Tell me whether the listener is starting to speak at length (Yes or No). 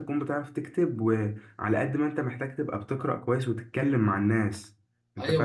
Yes